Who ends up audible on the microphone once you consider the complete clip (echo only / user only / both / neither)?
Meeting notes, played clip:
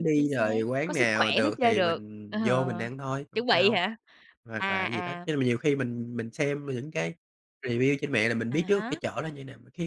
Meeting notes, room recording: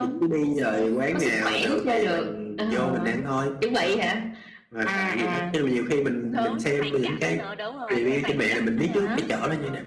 both